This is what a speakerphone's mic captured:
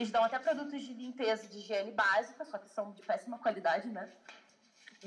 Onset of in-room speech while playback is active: none

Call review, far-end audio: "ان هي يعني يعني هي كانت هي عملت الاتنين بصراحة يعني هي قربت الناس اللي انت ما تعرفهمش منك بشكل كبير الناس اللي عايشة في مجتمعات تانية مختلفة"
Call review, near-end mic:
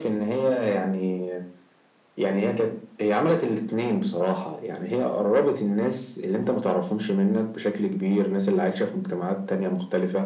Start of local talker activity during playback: none

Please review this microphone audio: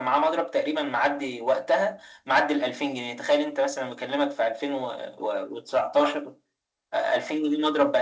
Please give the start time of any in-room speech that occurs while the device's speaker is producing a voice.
none

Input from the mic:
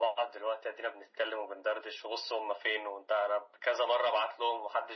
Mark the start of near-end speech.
none

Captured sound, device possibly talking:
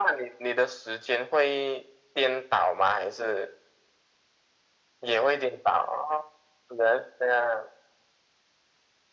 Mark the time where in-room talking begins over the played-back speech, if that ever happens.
none

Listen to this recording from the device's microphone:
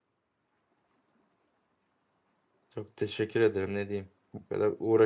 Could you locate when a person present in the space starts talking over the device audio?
3 s

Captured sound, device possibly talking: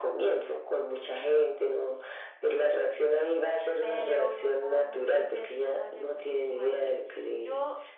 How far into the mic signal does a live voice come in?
4 s

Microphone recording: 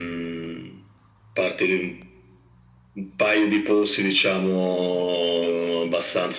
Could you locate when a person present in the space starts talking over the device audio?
none

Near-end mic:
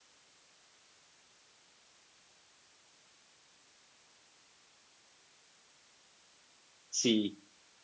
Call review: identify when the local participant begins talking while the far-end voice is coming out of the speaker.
7 s

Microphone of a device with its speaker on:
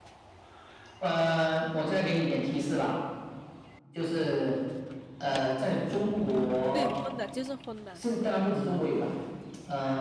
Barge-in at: 7 s

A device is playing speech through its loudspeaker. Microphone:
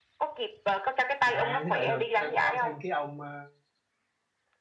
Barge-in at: 1 s

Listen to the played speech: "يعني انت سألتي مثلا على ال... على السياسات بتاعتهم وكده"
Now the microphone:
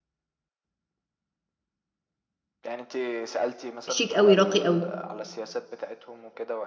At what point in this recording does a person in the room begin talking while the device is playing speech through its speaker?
4 s

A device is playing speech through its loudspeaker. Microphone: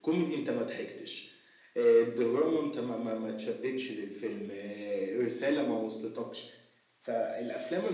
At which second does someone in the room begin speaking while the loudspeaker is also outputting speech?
none

